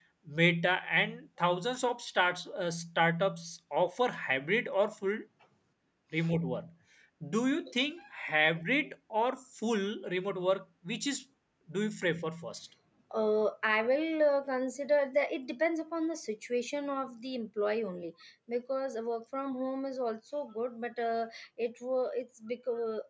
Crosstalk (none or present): none